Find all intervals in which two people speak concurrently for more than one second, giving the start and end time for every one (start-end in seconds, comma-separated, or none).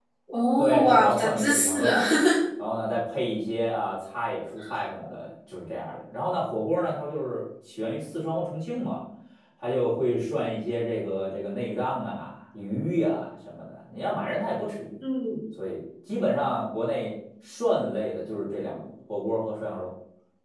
0.6-2.0